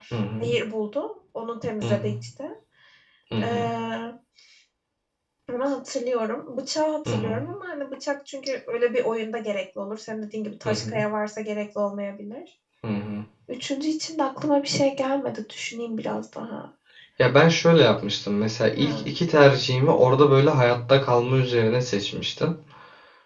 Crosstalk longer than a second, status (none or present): none